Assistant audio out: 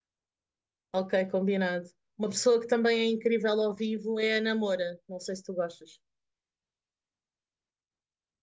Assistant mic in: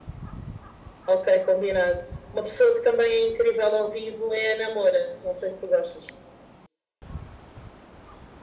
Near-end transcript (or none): none